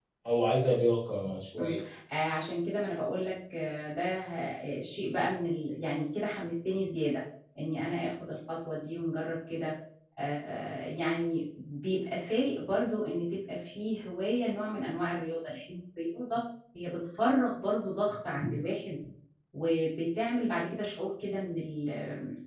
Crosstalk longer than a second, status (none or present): none